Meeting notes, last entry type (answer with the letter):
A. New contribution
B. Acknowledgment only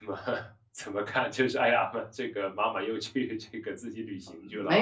A